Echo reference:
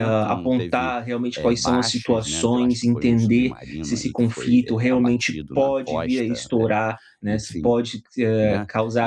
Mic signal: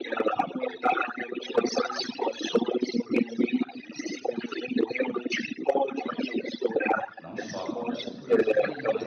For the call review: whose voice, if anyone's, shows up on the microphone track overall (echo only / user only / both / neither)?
both